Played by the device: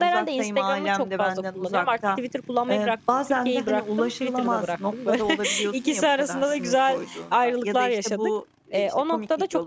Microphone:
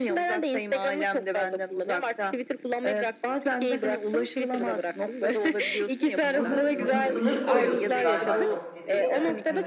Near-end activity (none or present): present